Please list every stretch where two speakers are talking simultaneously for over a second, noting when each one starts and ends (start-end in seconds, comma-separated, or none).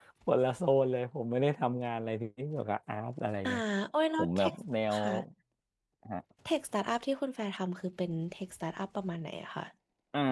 none